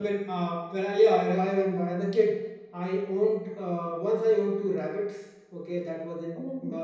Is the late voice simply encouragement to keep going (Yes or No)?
Yes